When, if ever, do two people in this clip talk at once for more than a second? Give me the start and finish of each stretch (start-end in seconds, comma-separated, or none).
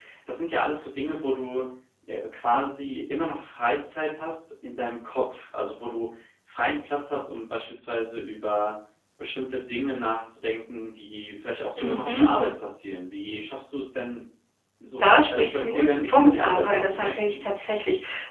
15.0-17.5